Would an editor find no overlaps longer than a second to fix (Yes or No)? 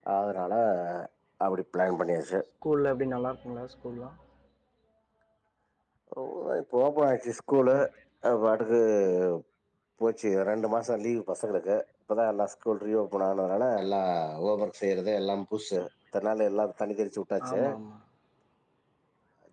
Yes